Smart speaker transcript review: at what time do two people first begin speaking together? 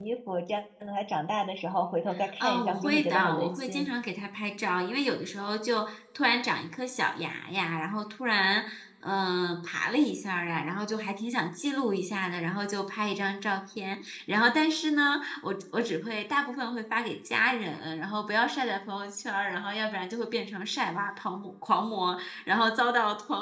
2.4 s

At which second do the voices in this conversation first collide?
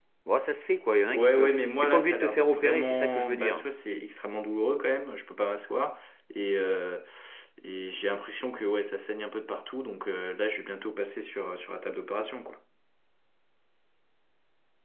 1.1 s

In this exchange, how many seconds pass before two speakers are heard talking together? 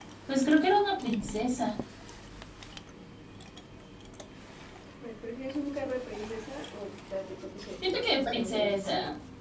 7.8 s

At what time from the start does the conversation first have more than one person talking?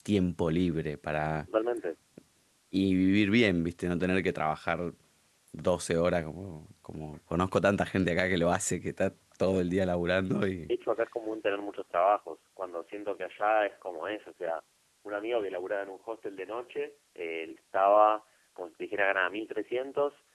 none

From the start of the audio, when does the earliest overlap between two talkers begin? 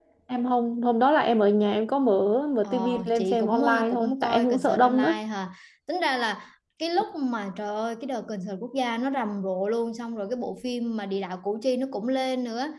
2.6 s

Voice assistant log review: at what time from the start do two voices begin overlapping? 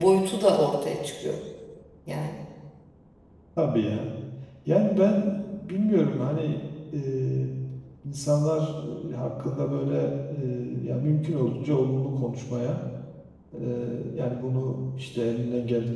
none

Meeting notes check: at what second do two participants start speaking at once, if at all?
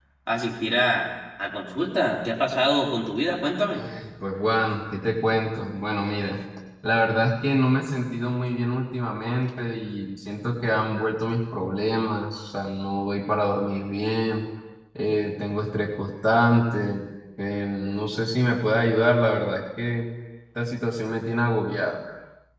none

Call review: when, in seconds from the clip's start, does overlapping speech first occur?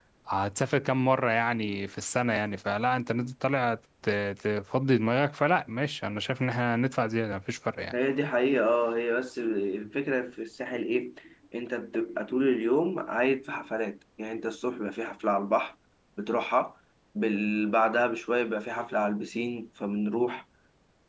none

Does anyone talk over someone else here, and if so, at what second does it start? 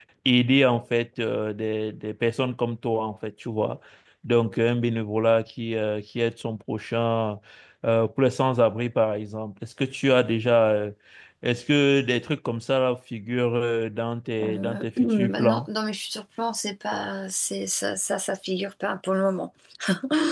14.4 s

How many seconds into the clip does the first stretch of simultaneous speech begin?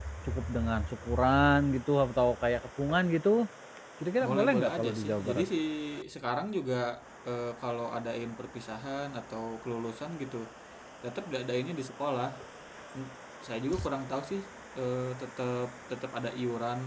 4.2 s

